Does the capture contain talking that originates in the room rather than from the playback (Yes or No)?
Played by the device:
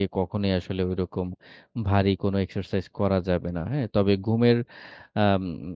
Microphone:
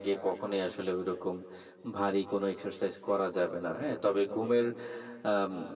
No